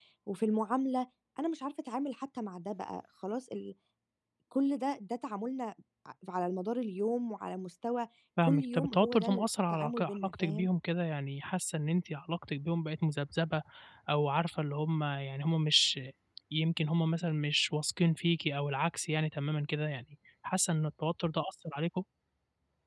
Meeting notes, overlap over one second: present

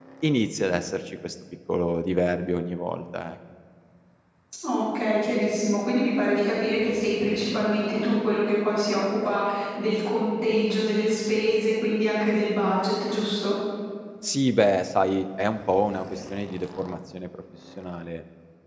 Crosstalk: none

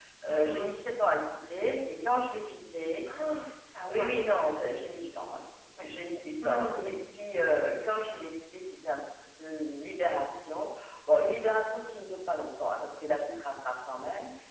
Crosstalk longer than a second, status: none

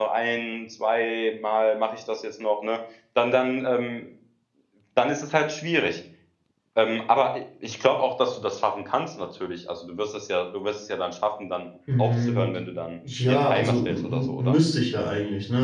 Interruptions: present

